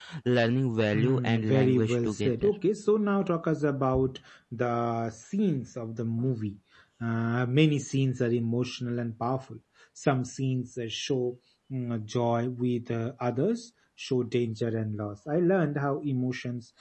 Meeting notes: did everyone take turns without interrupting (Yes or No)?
No